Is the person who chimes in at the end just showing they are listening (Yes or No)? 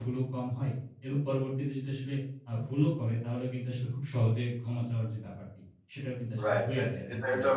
No